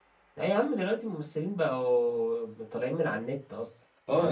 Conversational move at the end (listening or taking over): taking over